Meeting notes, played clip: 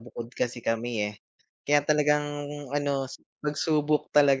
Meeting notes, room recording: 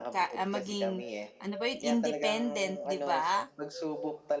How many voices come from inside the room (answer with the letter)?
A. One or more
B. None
A